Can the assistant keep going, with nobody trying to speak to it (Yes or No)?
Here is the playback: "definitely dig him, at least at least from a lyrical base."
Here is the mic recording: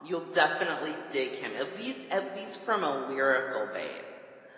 Yes